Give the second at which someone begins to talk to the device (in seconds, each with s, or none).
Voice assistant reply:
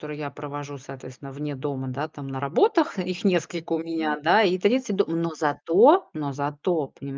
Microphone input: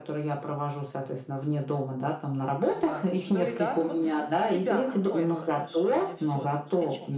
2.7 s